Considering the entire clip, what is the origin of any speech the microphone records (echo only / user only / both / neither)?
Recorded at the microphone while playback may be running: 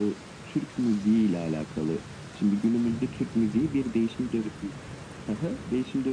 echo only